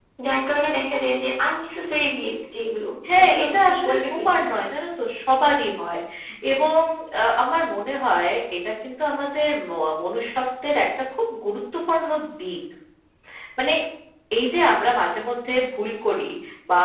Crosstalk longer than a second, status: present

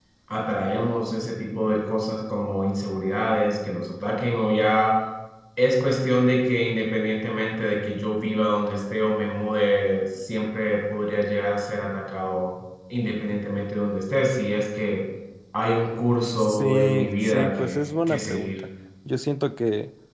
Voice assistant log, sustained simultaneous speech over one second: present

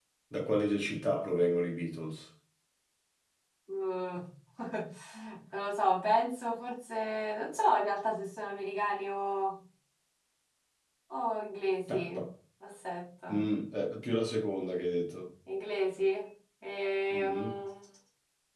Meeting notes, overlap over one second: none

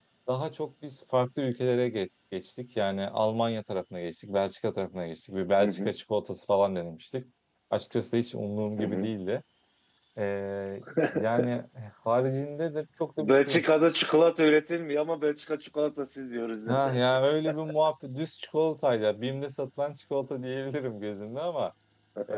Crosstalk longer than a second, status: none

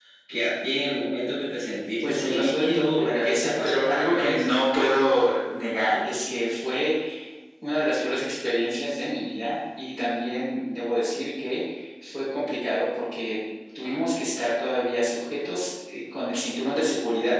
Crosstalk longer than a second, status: present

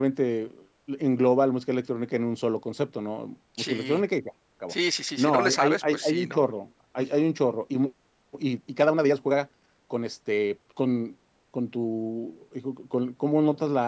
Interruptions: present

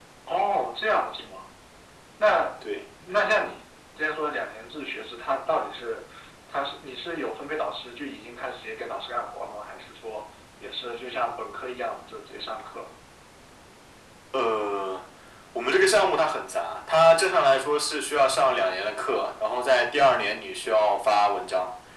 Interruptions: none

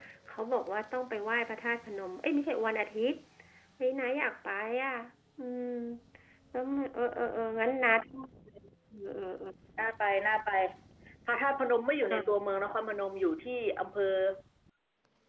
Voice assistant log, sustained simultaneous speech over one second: none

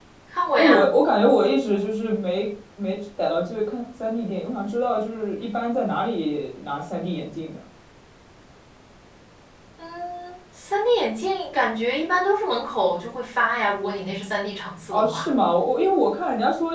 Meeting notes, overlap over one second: none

